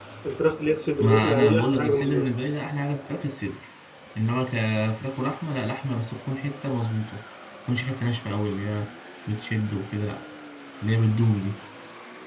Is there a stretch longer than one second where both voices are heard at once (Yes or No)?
Yes